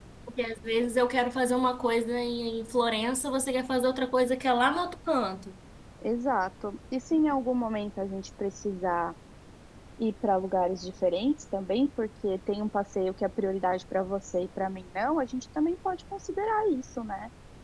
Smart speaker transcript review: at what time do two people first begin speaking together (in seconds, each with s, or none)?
none